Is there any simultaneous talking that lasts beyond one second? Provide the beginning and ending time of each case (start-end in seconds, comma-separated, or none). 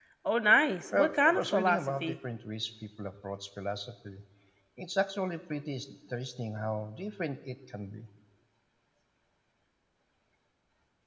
0.9-2.2